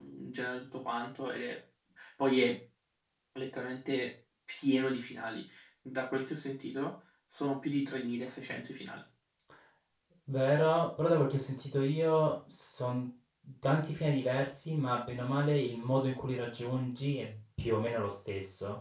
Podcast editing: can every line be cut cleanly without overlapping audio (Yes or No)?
Yes